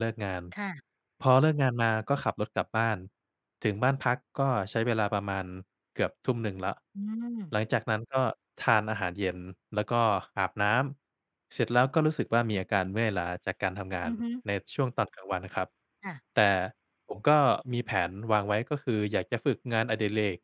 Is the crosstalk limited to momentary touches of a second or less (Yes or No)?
Yes